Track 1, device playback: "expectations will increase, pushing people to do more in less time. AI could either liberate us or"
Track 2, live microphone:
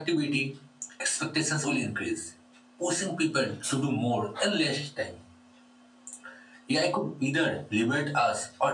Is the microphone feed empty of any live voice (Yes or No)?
Yes